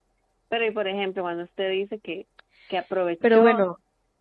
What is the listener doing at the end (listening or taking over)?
listening